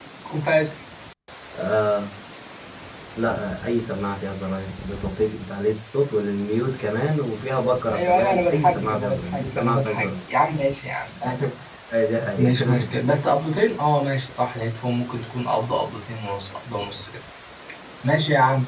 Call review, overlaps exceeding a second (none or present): present